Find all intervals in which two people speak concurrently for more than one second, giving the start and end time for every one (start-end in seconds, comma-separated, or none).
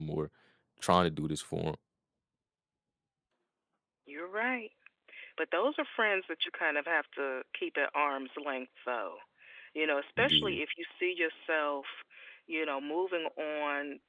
none